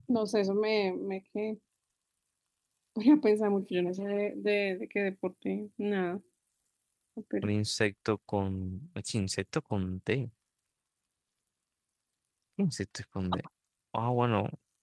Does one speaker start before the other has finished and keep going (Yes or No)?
No